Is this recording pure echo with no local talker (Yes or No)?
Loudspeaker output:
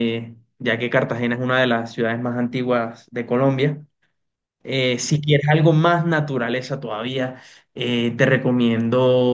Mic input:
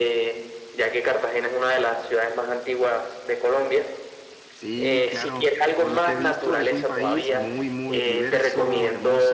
No